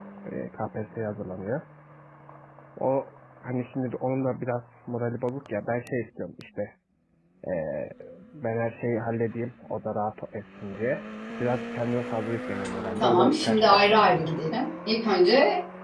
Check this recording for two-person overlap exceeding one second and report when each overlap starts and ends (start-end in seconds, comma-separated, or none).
13.0-14.3